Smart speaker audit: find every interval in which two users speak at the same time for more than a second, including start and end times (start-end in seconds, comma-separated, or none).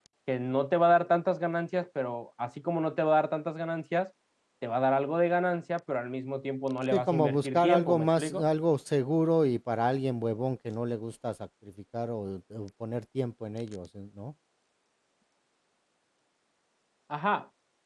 6.9-8.4